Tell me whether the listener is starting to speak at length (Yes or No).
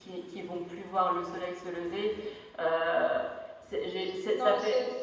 Yes